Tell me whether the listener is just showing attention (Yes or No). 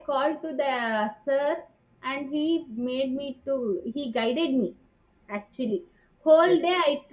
Yes